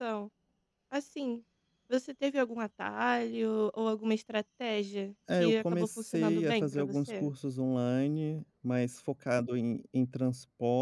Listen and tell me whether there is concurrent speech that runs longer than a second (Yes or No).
Yes